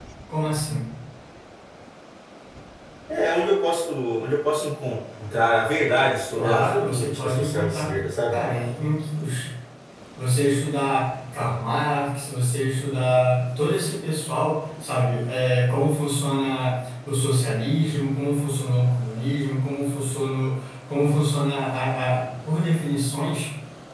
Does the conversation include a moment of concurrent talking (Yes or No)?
Yes